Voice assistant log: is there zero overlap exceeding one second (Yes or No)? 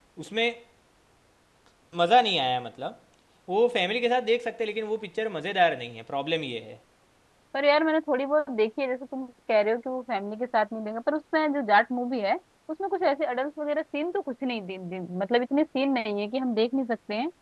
Yes